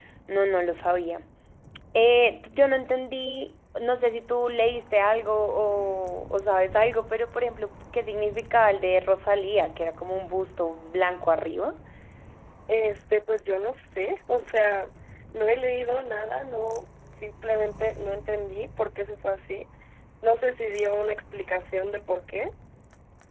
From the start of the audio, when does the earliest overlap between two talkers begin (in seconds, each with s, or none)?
none